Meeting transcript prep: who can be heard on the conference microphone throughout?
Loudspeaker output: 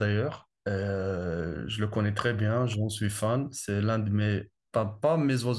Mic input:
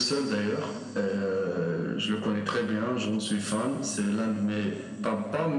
echo only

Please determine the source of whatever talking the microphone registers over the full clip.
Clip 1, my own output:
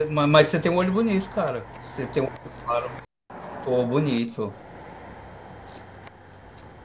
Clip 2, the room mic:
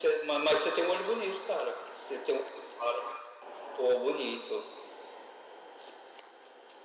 echo only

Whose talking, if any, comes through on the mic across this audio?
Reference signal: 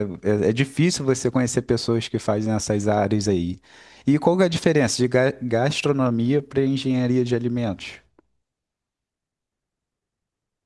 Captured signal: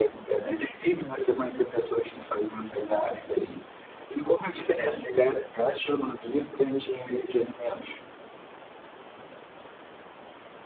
echo only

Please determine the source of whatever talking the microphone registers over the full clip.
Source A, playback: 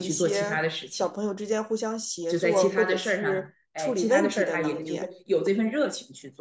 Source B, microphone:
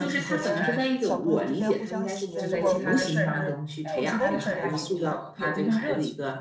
both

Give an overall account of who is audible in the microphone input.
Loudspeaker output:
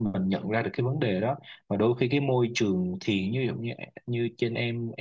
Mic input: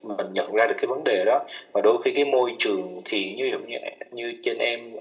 echo only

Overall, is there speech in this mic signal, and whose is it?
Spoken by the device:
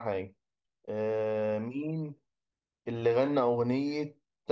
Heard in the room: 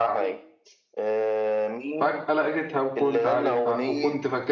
both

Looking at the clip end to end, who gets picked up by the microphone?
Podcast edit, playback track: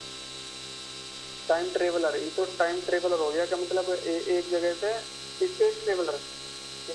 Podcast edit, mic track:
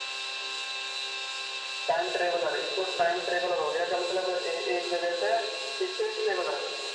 echo only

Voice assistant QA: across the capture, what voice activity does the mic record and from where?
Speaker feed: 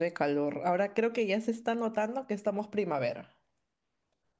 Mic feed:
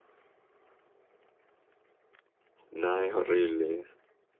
user only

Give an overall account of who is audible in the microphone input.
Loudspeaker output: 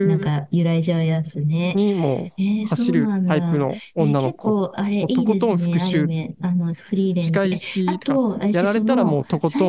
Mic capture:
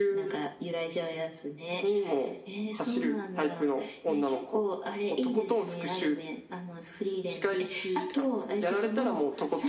echo only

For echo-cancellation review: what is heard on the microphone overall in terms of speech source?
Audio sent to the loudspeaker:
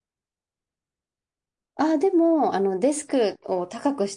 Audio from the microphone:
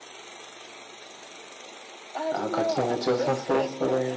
both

